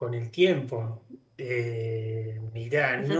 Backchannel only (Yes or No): Yes